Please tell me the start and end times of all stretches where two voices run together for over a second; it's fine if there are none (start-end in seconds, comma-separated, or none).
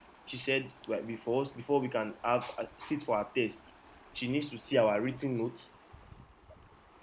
none